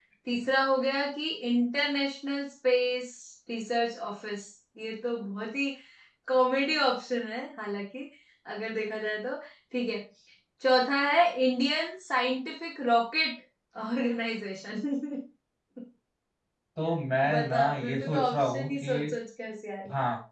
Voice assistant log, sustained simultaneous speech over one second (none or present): present